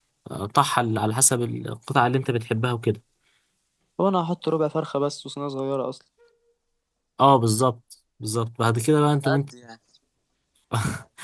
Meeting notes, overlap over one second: none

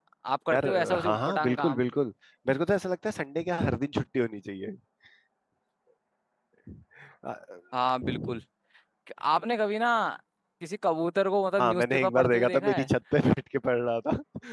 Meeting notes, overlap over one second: present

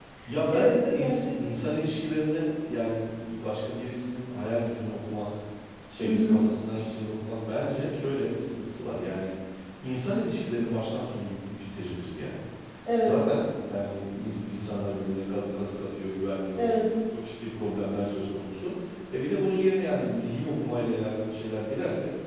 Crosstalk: present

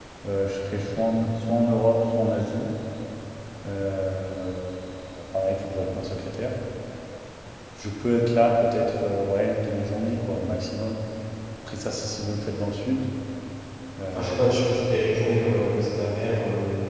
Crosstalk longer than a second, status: none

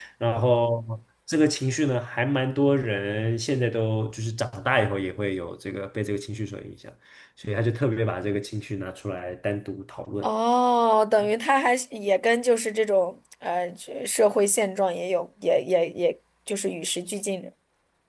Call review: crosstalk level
none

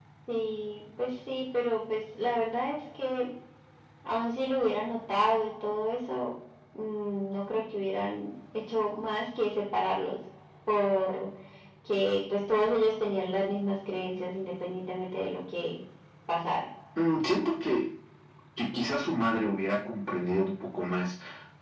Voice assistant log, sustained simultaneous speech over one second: none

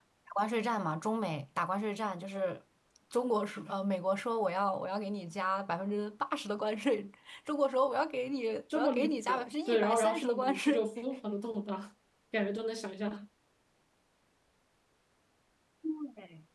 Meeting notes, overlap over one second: present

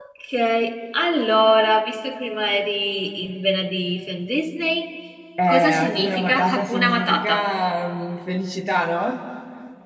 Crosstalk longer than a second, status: present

